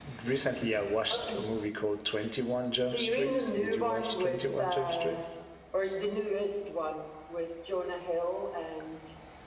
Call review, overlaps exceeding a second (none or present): present